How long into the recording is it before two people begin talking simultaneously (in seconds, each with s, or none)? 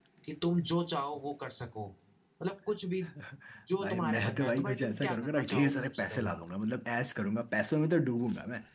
3.8 s